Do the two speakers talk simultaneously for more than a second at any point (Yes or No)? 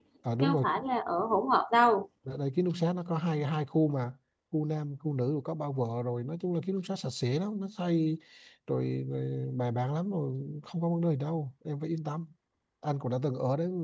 No